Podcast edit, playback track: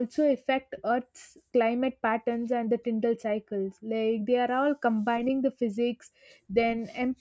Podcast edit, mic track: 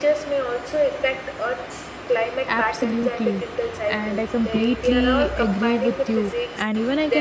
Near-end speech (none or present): present